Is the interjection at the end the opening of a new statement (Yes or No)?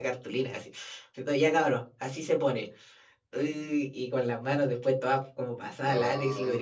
No